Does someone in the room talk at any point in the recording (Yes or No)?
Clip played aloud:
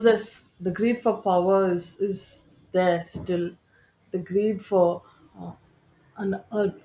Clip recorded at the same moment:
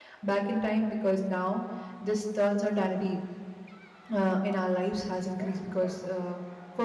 Yes